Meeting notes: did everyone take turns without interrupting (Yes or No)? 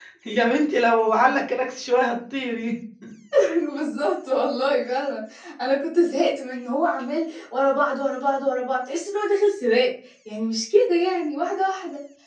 Yes